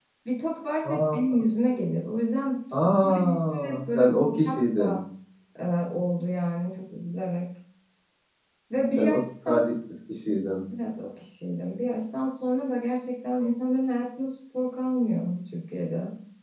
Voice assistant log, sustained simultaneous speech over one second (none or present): present